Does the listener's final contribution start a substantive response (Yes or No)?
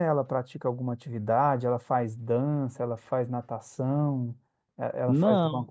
No